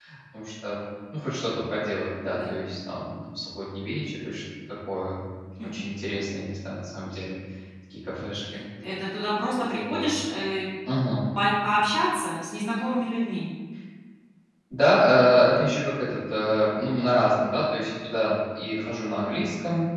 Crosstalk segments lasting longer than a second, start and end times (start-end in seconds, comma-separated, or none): none